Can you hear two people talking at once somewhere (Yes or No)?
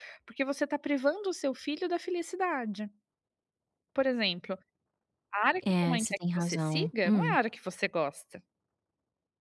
Yes